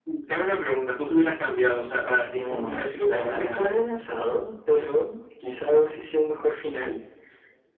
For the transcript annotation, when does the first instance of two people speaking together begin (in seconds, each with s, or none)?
2.2 s